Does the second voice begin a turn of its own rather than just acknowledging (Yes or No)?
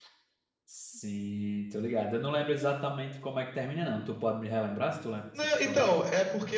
Yes